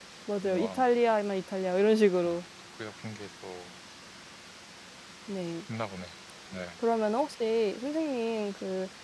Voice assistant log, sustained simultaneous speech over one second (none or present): none